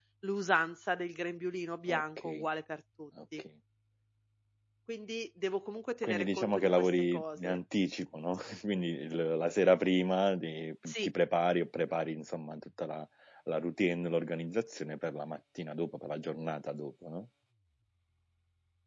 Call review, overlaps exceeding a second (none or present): present